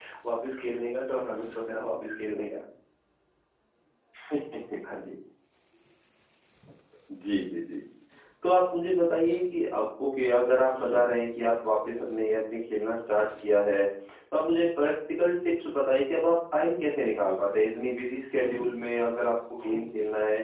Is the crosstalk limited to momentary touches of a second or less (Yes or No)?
Yes